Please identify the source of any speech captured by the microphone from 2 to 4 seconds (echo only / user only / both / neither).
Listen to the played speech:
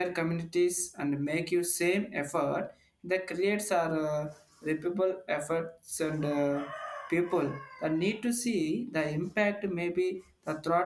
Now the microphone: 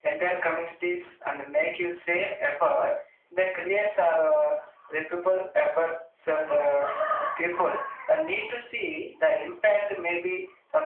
echo only